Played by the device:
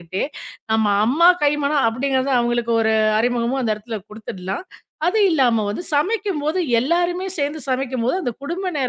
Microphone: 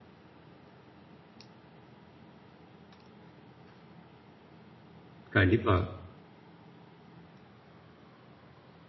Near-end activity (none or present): present